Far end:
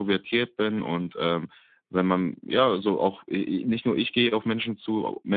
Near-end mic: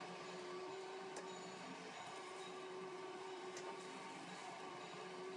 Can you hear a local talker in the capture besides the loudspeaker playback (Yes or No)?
No